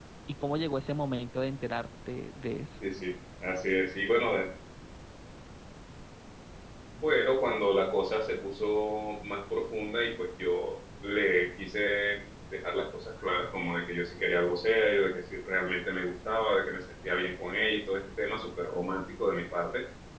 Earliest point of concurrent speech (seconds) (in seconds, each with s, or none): none